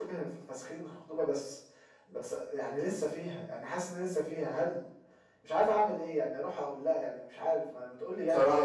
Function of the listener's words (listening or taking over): taking over